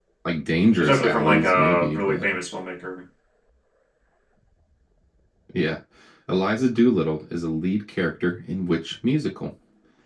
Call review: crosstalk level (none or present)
present